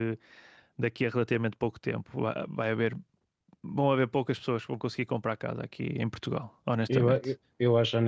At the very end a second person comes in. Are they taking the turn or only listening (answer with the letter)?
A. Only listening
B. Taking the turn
B